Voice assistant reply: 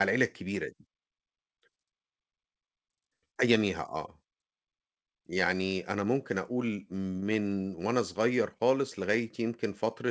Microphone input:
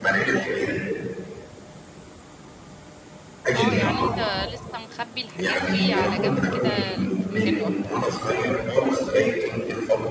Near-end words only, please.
آه، يعني أنت لسه مخبّي الحاجات دي على جنب كده في مكان لوحدك،

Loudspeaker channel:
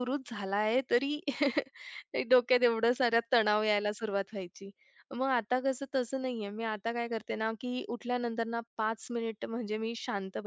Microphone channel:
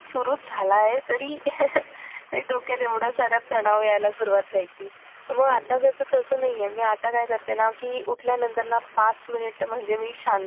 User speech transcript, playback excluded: अच्छा.

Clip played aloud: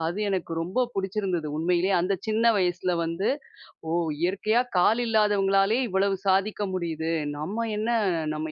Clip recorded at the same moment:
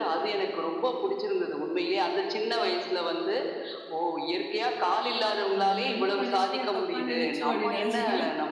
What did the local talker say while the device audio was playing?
அந்த நல்ல மனுஷனையா தப்பா நெனைச்சோம் அப்டின்னு நெனைச்சீங்களா?

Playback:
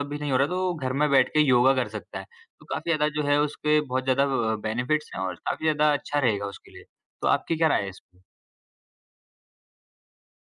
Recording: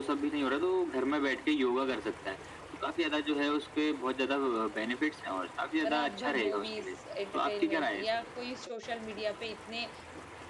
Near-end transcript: रात भर मूवीज़, एंटरटेनमेंट या कोई सोशल मीडिया पे इतने

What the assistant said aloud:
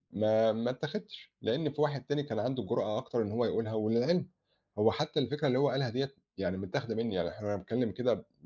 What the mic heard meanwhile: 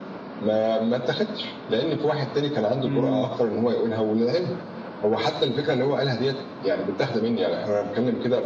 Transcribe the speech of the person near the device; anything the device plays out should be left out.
إمم.

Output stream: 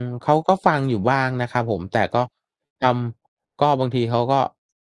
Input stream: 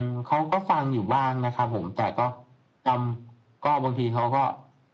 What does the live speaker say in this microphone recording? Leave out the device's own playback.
none

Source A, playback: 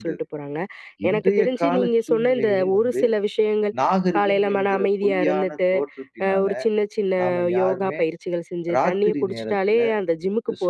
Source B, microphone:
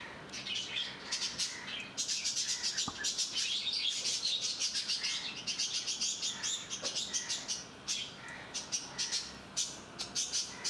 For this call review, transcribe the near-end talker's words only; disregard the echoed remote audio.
none

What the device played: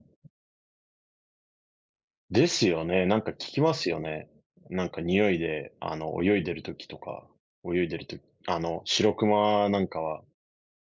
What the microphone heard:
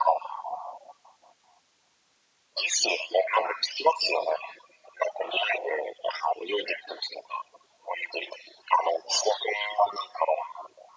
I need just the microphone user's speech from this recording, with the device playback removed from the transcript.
none

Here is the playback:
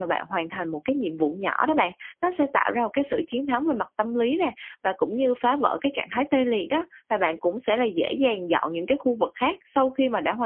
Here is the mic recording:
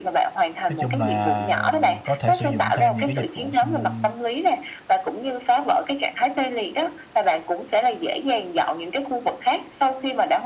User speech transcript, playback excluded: Nói chung là có thể sử dụng thêm những cái dịch vụ xung

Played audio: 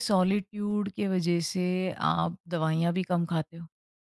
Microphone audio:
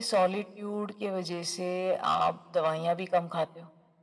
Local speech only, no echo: none

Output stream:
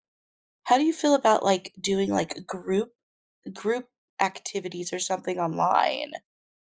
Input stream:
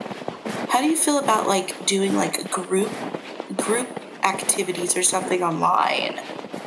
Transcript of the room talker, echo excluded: none

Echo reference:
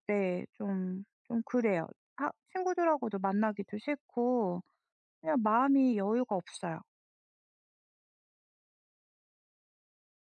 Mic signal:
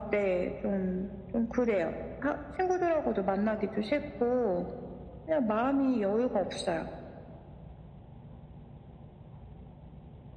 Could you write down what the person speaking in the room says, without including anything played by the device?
none

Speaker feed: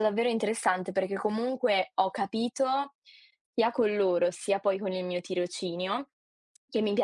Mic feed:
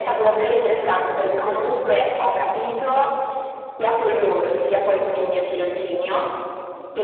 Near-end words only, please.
none

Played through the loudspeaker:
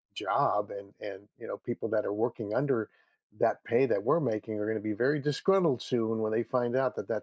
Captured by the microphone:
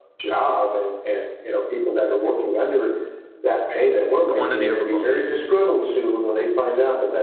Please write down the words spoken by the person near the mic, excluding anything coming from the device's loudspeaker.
Quantity over quality.

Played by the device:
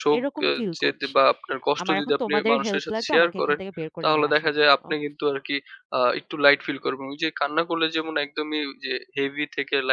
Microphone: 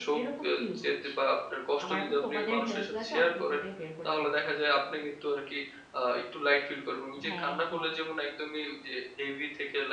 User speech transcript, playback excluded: হ্যাঁ, হ্যাঁ।

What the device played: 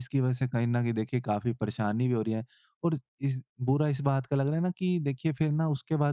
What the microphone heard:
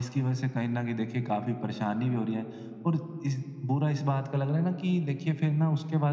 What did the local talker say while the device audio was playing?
none

